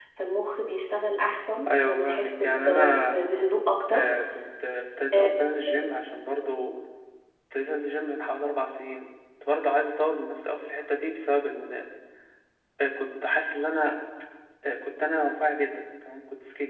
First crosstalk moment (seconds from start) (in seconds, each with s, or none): 1.7 s